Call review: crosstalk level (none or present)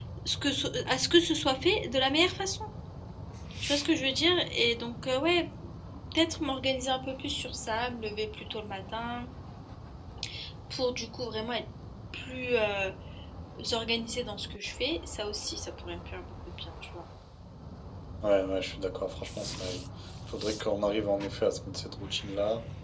none